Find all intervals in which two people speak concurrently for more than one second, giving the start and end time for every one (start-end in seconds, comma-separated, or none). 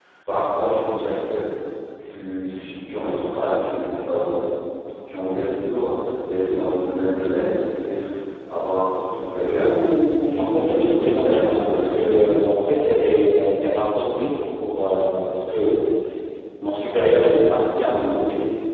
10.3-11.9